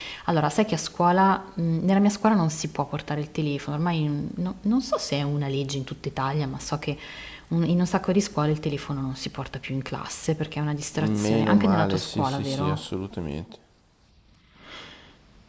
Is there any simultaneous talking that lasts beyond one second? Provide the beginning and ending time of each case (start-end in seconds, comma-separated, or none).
11.0-12.8